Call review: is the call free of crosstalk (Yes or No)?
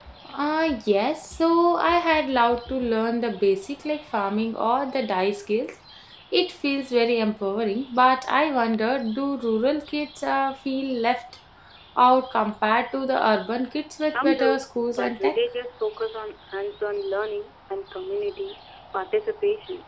No